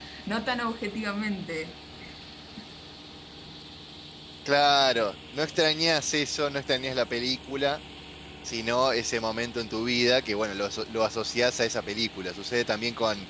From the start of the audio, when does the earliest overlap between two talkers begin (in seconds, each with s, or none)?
none